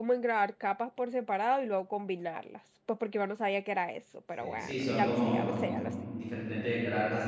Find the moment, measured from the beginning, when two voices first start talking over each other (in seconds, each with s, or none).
4.4 s